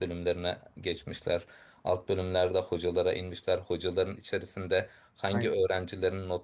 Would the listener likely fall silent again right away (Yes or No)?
Yes